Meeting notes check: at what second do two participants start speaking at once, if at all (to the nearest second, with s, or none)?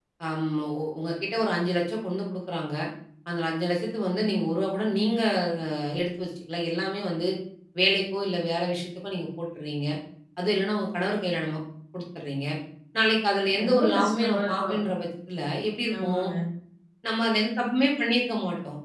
14 s